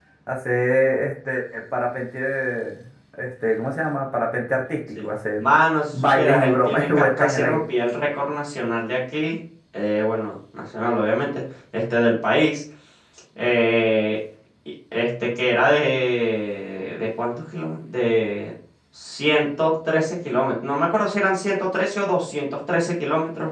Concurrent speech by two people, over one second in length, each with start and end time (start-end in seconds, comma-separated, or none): 5.9-7.6